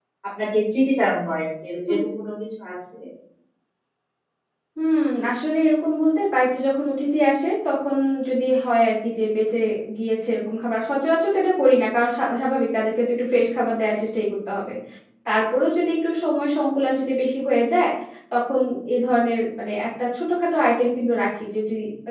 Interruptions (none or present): none